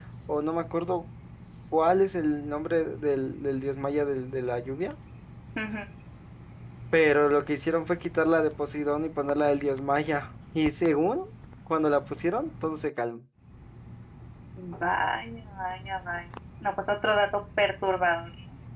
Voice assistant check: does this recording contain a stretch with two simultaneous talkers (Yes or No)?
No